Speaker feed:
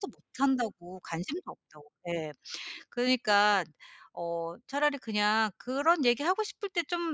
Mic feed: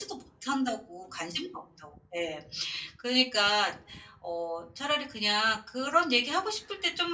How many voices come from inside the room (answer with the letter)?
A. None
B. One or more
A